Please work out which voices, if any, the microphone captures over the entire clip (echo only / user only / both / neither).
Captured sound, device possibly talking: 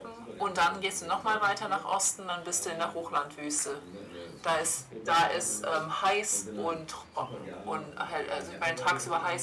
both